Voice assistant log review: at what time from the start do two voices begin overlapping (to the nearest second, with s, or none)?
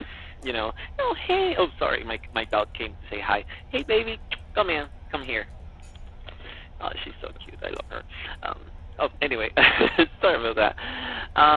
none